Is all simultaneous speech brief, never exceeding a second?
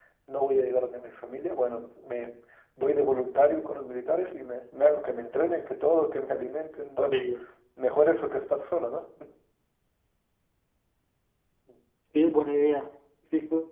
Yes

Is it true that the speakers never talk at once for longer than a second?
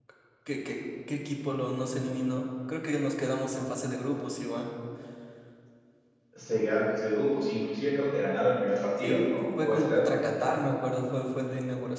Yes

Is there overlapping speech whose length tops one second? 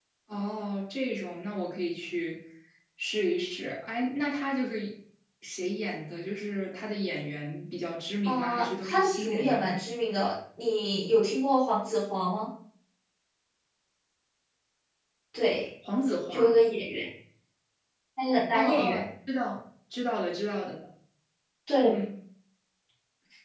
Yes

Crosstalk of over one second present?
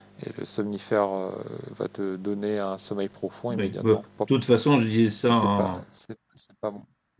No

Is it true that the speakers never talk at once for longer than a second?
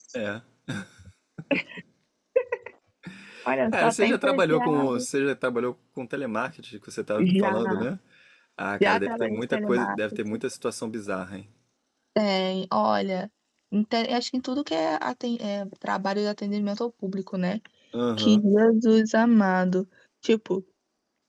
No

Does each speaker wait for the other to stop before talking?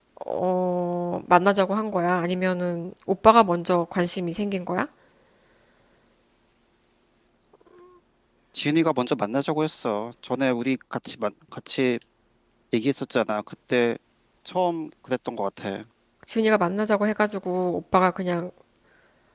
Yes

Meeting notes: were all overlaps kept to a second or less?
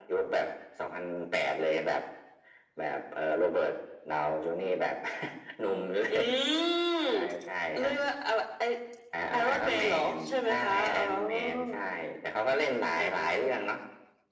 No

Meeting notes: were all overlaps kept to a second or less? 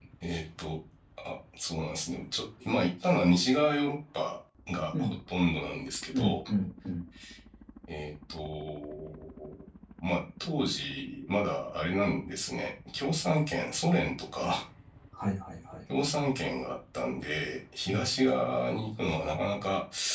Yes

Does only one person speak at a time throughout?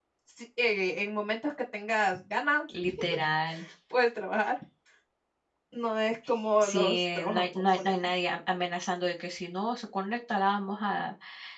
No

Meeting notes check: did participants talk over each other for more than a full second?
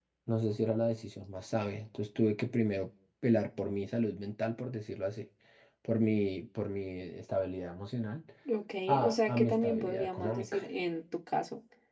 Yes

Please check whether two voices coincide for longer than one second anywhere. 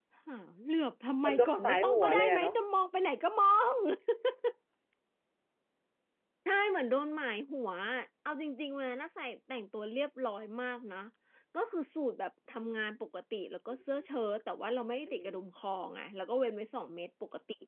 Yes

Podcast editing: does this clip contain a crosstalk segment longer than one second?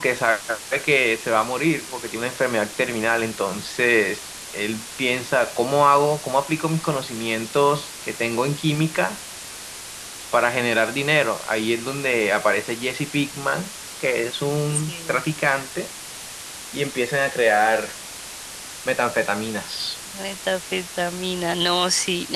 No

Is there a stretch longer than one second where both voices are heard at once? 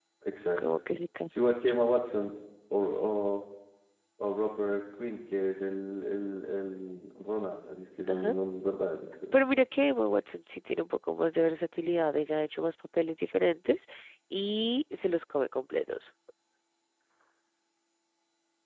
No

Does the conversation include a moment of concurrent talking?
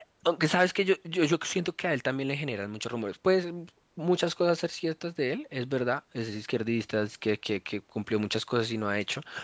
No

